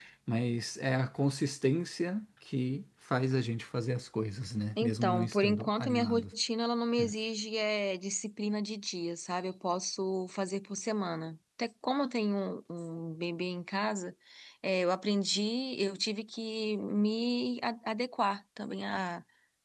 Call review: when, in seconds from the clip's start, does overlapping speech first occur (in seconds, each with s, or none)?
4.8 s